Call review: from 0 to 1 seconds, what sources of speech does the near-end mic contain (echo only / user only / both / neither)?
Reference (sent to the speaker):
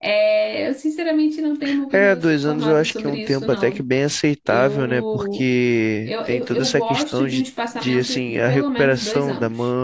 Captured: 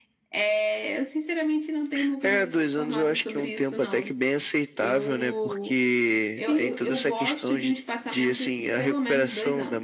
echo only